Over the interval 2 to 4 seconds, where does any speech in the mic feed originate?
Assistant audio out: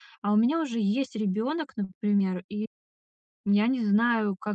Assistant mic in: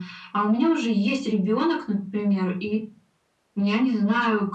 echo only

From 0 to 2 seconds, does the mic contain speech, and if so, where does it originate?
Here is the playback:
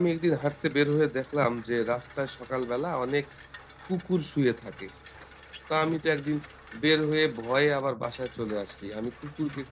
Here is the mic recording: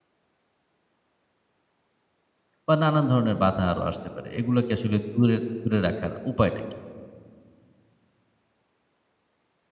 neither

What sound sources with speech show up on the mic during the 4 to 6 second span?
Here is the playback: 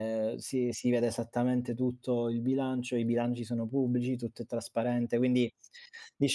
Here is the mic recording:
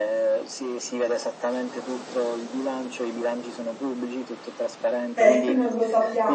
both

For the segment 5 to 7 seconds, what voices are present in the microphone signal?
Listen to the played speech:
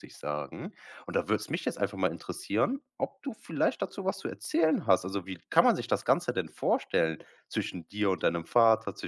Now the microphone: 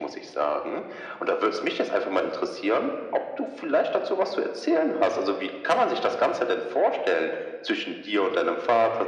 echo only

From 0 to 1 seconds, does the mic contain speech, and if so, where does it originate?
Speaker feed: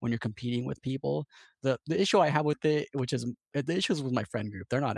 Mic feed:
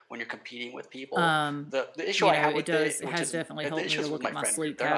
echo only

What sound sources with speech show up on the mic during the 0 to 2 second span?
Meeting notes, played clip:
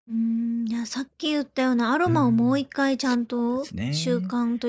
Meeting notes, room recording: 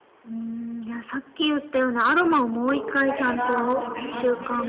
echo only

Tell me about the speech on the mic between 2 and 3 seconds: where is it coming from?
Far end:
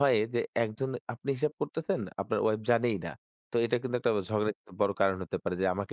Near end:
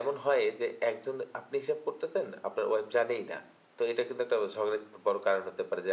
echo only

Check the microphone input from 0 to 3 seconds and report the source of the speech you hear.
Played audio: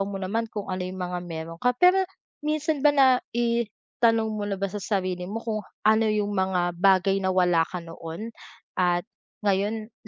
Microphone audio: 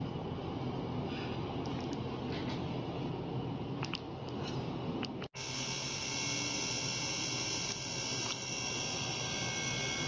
neither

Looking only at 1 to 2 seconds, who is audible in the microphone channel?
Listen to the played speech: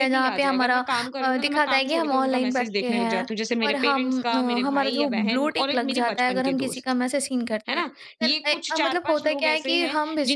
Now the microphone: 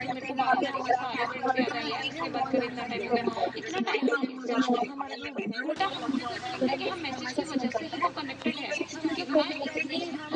both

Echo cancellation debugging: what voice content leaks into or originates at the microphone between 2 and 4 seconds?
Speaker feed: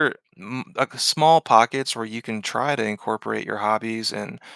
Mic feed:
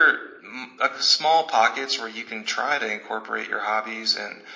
echo only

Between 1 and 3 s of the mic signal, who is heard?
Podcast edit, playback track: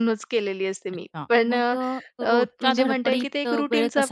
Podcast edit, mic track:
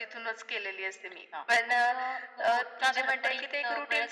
echo only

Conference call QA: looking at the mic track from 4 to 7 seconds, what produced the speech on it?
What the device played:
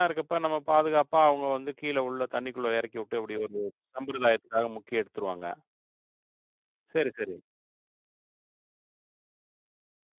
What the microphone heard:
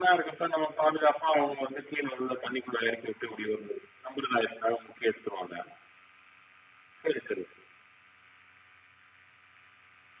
echo only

